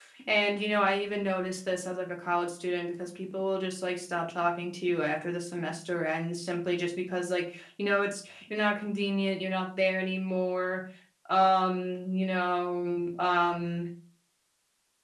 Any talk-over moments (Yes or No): No